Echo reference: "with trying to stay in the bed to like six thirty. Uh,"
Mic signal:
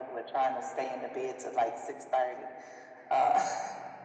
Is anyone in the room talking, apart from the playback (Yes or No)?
No